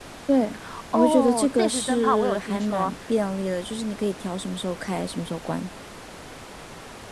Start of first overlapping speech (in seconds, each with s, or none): 0.9 s